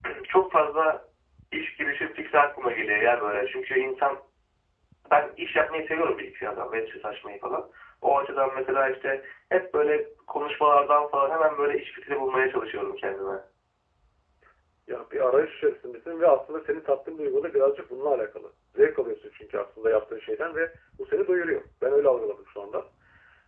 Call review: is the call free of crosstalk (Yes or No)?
Yes